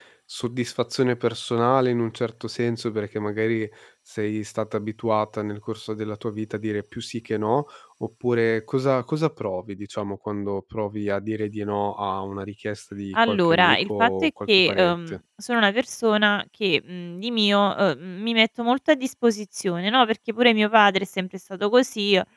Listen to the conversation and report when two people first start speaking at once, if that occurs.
13 s

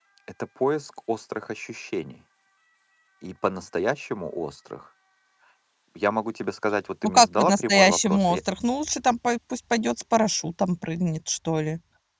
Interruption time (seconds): 7 s

